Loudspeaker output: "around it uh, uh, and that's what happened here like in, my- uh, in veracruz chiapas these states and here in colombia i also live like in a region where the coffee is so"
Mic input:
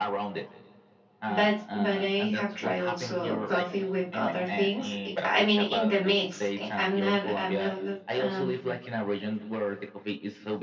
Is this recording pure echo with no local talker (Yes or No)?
No